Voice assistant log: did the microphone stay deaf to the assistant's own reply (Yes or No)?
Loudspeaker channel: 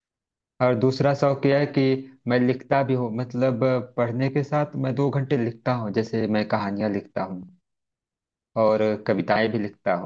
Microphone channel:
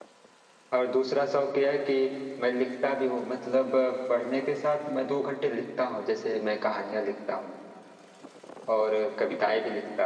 No